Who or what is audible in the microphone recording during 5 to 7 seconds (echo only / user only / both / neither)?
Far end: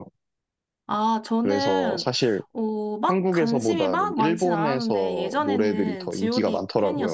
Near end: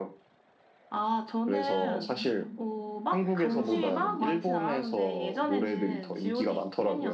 echo only